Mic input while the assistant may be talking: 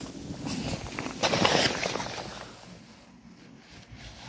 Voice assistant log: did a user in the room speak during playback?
No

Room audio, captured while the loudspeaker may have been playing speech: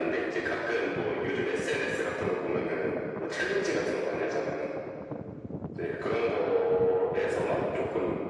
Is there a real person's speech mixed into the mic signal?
No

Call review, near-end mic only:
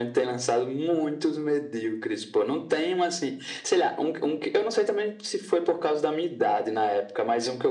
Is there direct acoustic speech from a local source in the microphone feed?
No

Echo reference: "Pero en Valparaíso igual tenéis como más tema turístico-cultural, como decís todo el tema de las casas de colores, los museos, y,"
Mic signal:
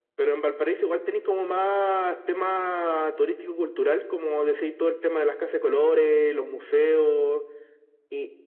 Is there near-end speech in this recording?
No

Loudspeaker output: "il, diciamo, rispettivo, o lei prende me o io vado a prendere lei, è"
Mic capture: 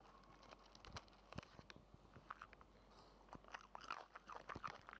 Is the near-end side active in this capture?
No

